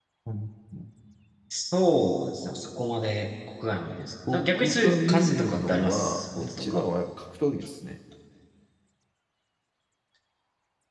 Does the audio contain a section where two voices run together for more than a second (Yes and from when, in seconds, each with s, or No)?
Yes, from 4.2 s